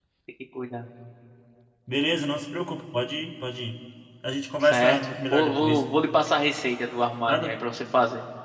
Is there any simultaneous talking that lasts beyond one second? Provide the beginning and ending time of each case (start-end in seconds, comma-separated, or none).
4.6-5.9